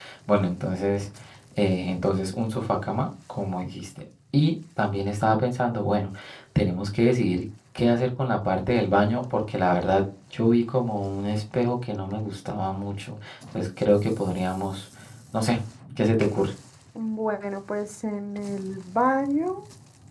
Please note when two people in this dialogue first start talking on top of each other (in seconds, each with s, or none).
none